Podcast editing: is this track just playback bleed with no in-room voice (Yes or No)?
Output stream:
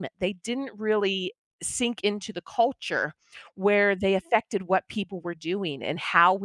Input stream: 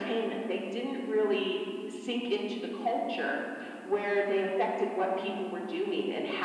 Yes